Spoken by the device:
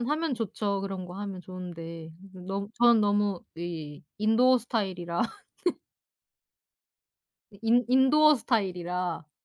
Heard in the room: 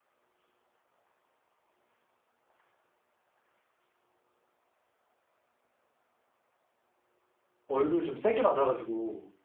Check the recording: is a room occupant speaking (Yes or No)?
Yes